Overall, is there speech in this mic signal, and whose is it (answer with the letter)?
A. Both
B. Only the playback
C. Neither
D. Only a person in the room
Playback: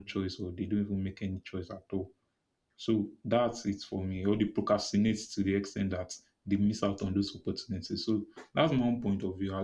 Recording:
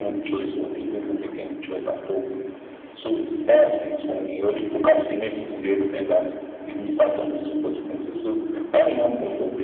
B